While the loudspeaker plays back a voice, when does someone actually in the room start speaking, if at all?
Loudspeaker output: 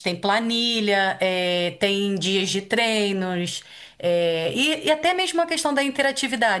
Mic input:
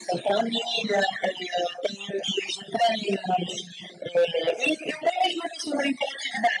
none

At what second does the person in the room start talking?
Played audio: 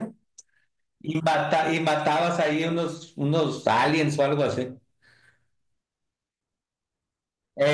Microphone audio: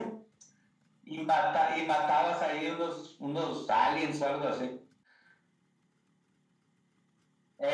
none

